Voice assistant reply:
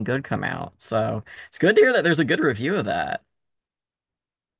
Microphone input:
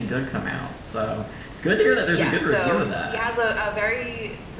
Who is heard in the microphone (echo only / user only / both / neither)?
both